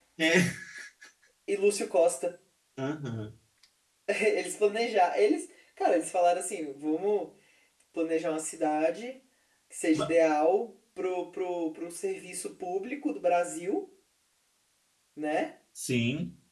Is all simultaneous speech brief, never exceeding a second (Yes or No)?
Yes